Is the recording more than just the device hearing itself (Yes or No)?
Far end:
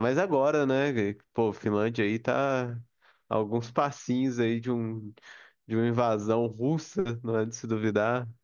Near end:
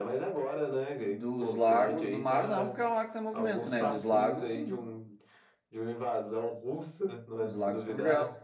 Yes